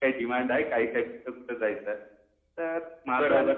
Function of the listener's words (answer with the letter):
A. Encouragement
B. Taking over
B